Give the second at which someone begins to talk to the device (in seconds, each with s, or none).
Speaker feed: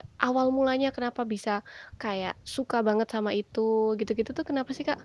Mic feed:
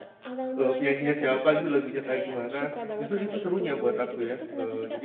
0.5 s